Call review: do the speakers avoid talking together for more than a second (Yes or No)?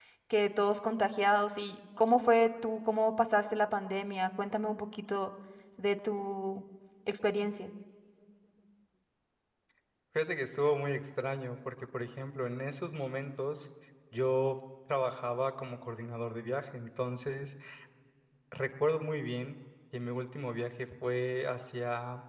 Yes